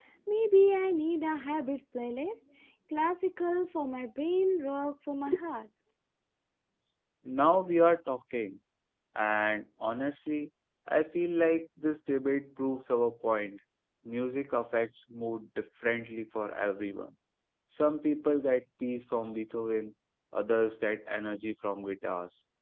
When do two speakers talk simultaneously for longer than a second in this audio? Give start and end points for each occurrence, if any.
none

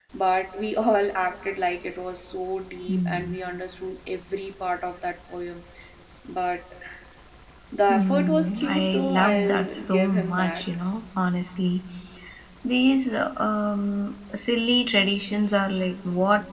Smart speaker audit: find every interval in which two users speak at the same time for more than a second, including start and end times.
7.9-10.6

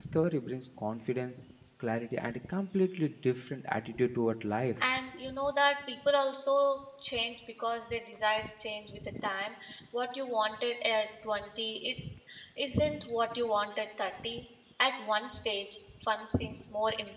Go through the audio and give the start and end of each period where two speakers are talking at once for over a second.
none

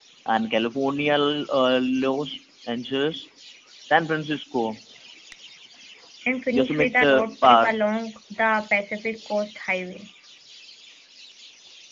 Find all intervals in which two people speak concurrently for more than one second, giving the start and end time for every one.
6.5-7.7

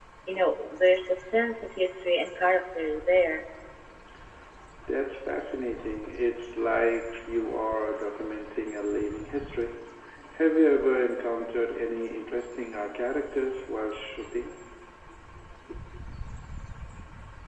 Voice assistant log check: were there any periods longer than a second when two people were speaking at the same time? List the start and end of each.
none

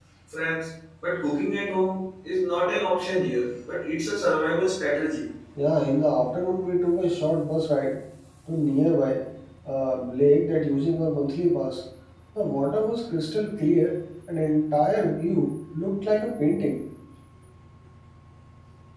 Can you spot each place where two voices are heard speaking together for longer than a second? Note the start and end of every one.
none

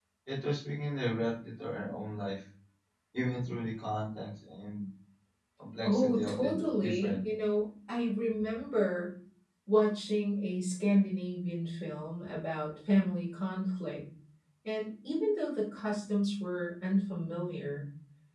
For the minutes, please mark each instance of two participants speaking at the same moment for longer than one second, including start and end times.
5.8-7.2

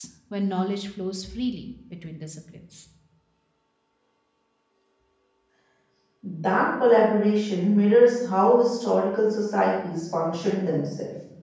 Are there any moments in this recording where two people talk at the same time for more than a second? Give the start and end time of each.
none

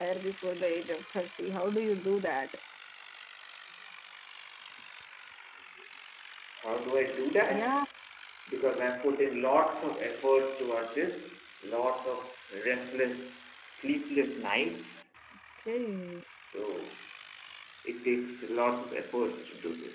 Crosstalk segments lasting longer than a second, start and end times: none

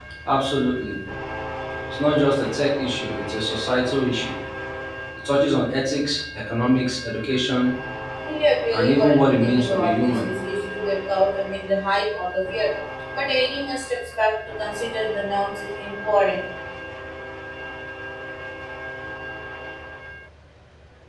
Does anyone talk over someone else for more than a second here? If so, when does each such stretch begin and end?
8.7-10.2

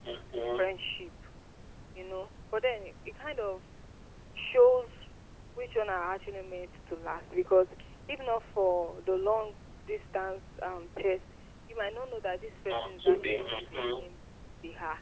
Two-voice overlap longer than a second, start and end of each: 12.7-14.1

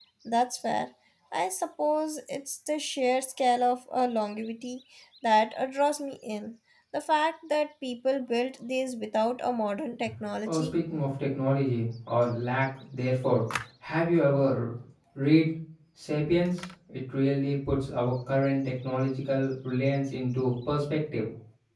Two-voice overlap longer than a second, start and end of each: none

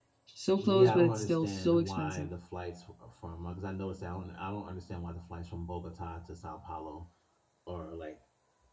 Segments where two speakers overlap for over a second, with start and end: 0.6-2.3

